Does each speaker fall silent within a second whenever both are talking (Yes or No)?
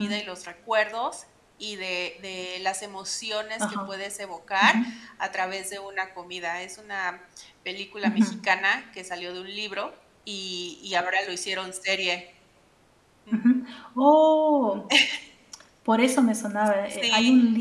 Yes